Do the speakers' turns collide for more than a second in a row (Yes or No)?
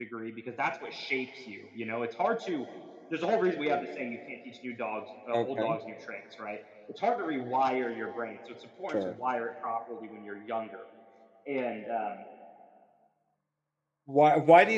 No